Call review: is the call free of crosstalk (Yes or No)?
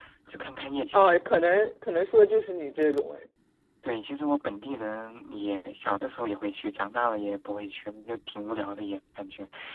Yes